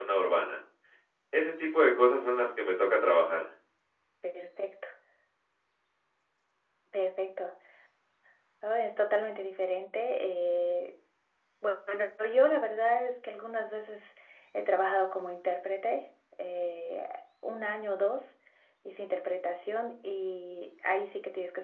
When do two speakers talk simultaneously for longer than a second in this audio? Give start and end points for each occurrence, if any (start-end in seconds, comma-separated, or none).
none